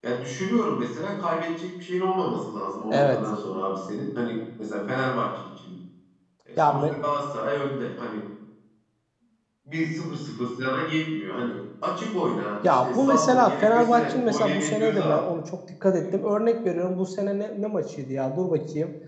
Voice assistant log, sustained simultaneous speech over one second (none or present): present